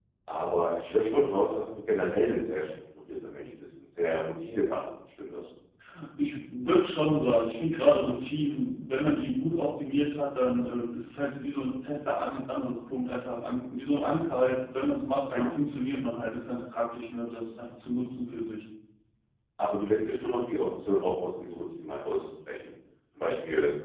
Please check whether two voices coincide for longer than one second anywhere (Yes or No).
No